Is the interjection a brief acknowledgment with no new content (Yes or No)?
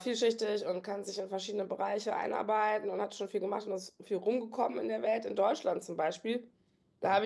Yes